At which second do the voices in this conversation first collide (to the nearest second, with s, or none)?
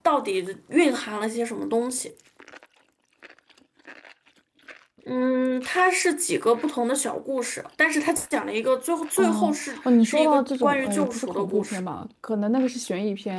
9 s